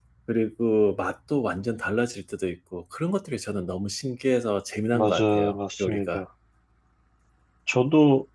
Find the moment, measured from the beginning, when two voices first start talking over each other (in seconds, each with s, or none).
4.9 s